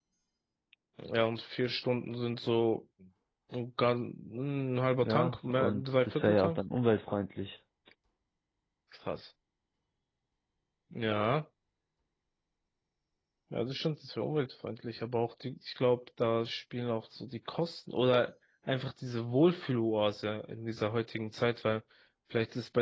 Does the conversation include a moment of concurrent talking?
Yes, from 5.0 s

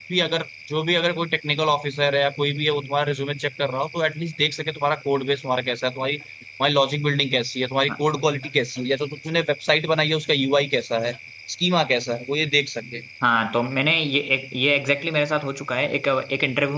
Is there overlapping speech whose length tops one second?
No

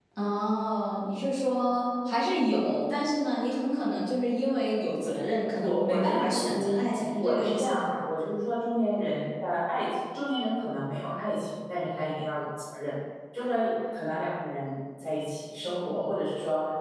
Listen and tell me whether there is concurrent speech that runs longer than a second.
Yes, from 5.6 s

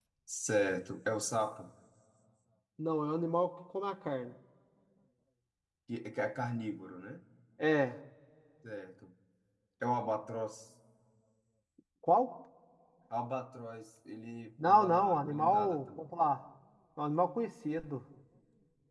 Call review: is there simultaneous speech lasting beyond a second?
Yes, from 14.6 s

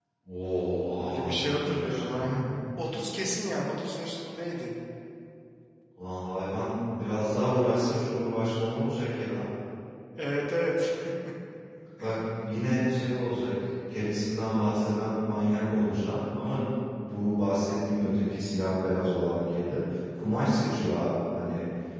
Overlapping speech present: Yes, from 1.0 s

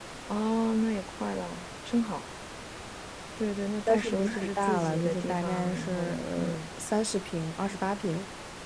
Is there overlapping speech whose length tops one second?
Yes, from 3.9 s

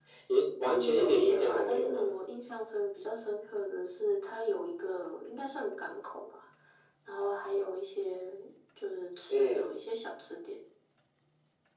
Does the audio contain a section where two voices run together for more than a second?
Yes, from 0.6 s

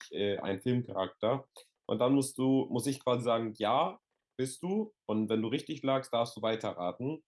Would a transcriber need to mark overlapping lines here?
No

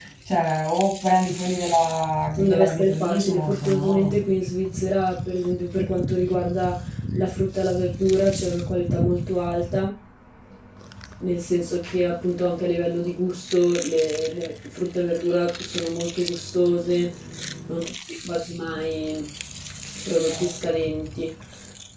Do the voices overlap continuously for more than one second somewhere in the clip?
Yes, from 2.3 s

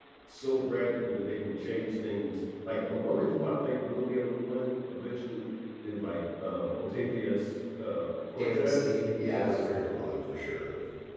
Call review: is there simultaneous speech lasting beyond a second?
Yes, from 8.4 s

